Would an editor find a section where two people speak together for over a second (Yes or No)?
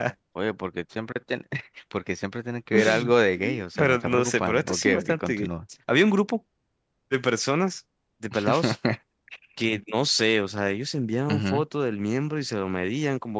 Yes